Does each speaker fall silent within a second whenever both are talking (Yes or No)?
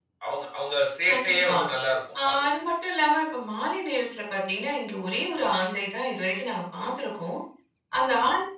Yes